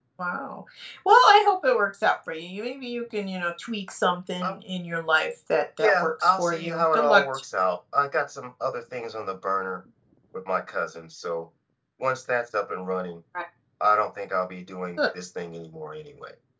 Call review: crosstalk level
present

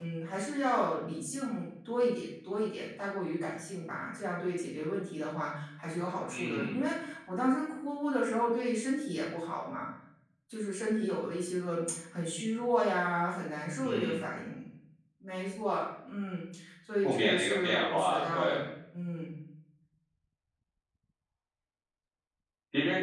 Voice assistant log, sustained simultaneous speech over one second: present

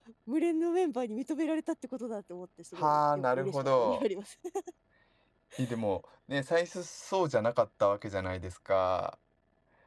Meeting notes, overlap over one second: present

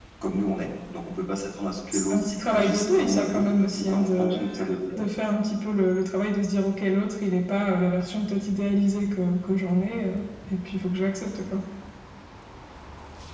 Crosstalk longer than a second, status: present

